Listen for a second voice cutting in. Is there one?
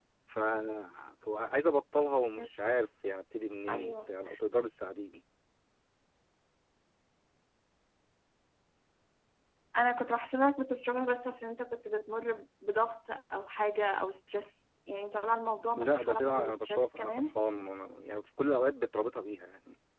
Yes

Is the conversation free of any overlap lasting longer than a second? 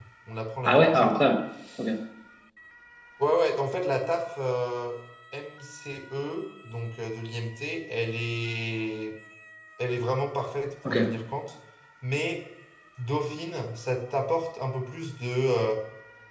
Yes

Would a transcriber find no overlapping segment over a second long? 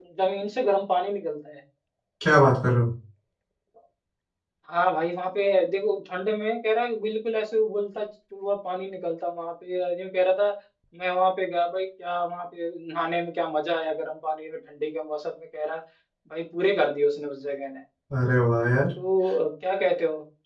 Yes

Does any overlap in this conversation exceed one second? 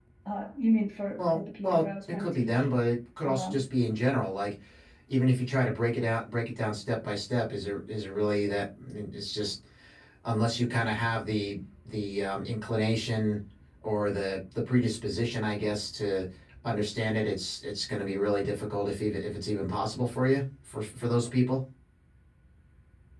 Yes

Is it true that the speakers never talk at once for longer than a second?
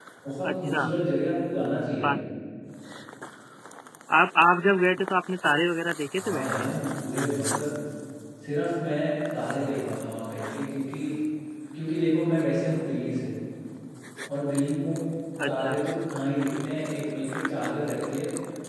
Yes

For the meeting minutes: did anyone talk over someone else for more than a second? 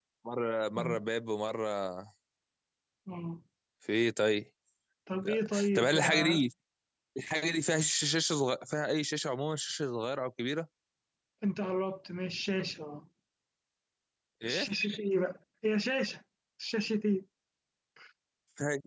Yes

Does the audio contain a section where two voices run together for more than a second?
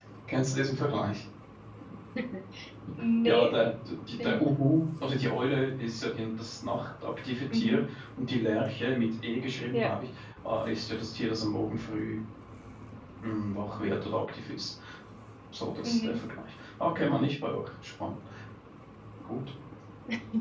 No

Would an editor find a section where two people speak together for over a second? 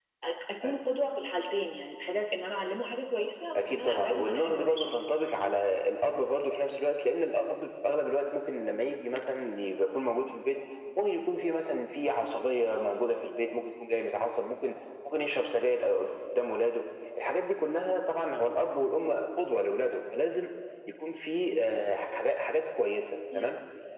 Yes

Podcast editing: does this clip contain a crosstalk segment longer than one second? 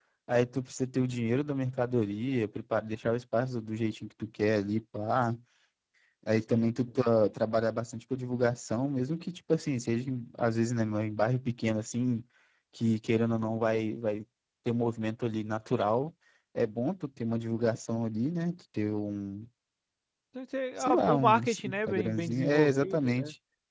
Yes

